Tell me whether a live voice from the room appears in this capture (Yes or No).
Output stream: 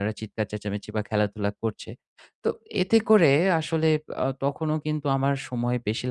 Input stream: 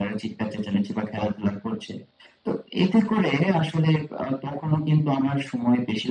No